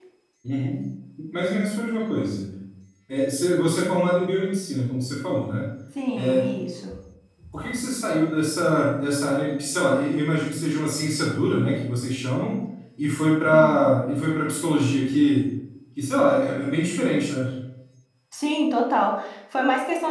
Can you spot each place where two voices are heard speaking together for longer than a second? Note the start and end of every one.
none

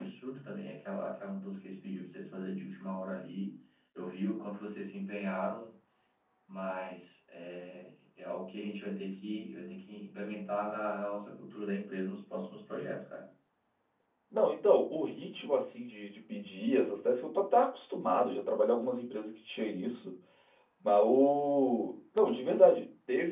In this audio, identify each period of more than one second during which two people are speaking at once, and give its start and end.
none

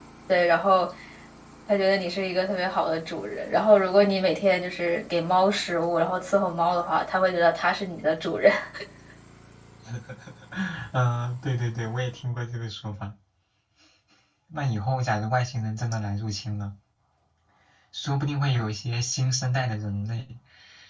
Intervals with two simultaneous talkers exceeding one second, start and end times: none

